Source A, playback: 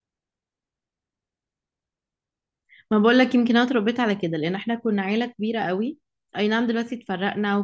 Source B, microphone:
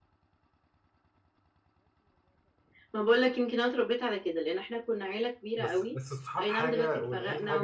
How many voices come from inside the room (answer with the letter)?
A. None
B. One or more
B